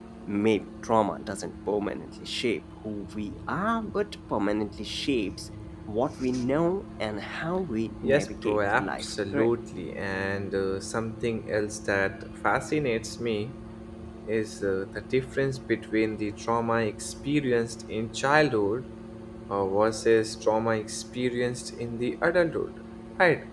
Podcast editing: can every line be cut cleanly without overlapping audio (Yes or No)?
No